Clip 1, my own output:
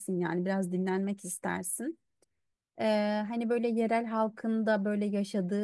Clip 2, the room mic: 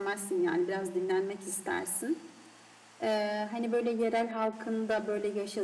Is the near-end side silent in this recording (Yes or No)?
Yes